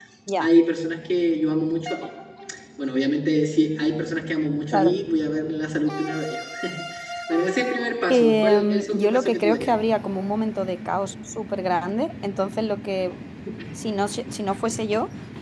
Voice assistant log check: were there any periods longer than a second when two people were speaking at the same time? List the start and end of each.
8.1-9.7

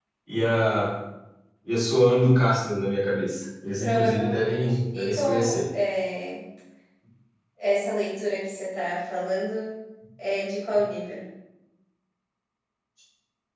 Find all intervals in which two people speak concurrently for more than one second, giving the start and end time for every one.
3.8-5.6

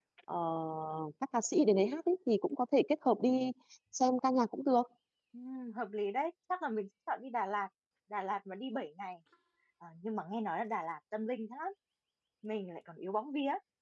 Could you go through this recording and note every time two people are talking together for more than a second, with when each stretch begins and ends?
none

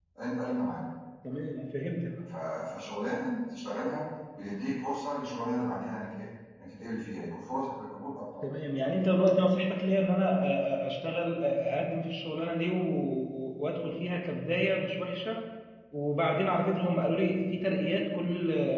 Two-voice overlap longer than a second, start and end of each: none

